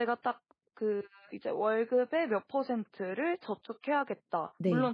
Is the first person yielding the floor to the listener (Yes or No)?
No